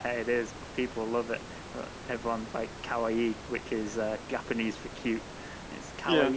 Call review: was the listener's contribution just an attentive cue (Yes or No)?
Yes